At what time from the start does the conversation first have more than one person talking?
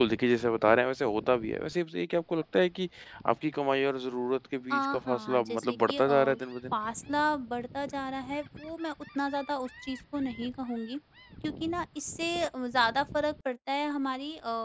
4.7 s

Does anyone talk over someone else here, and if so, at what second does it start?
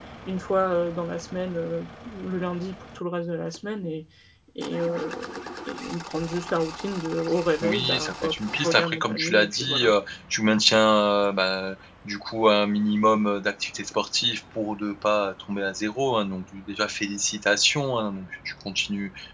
7.6 s

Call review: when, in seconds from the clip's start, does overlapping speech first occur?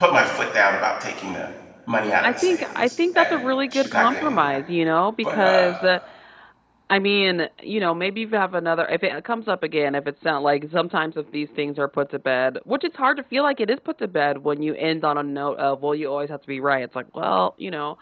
2.2 s

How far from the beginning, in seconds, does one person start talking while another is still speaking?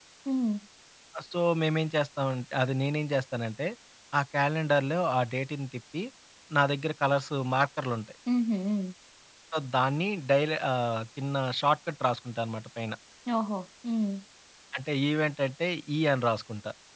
none

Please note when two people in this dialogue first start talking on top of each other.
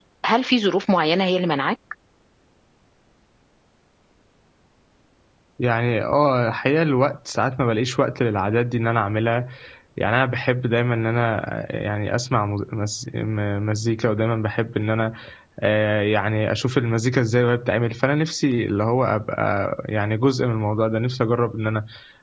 none

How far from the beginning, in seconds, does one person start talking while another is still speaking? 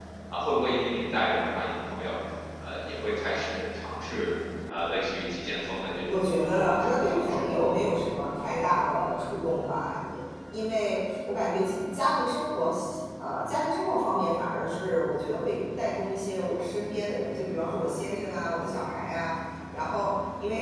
6.0 s

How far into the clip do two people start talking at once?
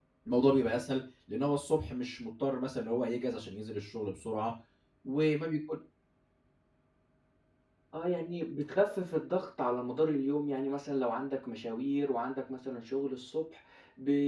none

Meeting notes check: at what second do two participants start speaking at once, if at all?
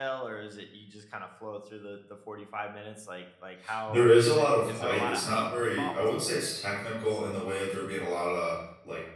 3.6 s

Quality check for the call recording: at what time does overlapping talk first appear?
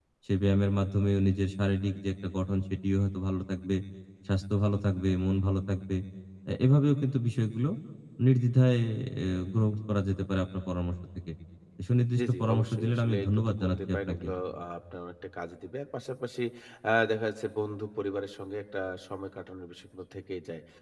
12.2 s

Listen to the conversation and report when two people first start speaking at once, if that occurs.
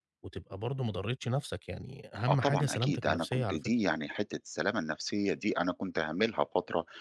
2.3 s

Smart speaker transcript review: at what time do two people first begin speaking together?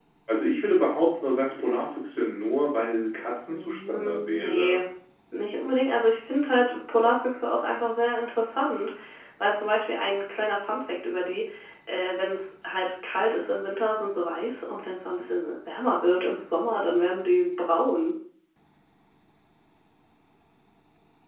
3.5 s

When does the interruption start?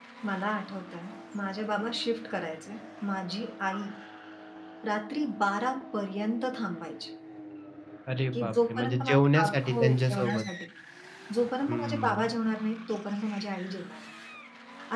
8.3 s

